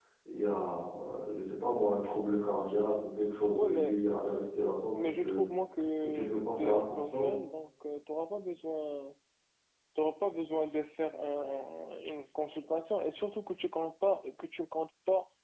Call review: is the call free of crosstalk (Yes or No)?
No